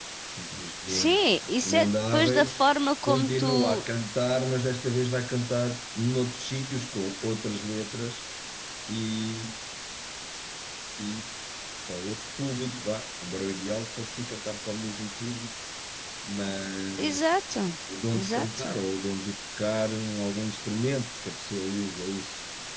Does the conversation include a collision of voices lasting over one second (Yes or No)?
Yes